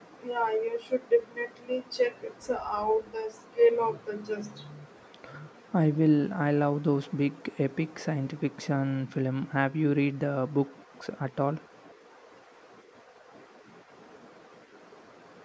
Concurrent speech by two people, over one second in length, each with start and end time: none

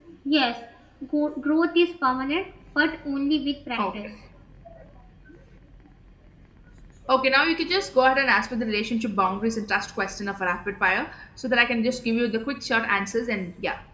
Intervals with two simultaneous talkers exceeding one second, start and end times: none

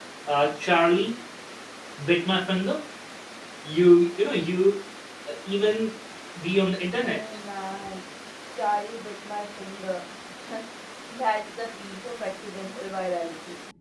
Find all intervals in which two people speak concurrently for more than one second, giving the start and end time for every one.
none

